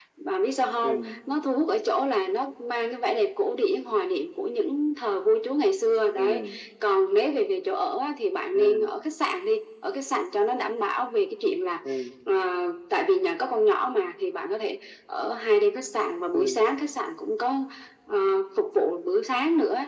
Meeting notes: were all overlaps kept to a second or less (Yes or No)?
Yes